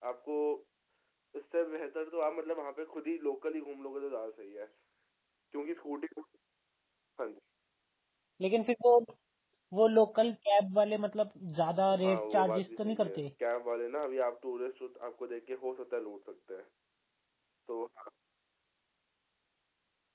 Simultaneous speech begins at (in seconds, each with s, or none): 11.9 s